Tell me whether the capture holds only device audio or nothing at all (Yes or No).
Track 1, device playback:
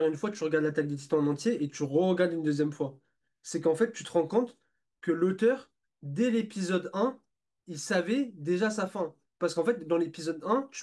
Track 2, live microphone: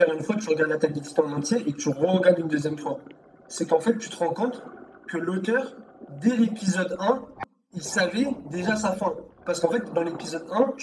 Yes